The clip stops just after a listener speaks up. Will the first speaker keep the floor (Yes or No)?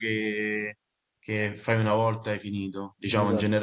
Yes